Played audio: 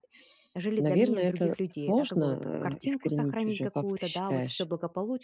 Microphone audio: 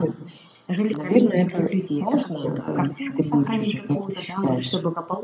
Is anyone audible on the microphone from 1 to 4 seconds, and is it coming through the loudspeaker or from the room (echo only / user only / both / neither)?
echo only